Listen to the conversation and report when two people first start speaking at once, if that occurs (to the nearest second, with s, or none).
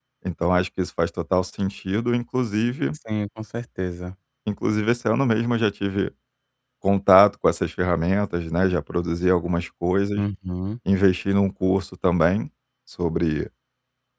none